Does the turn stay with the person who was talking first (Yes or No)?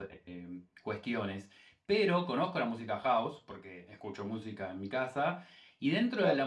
Yes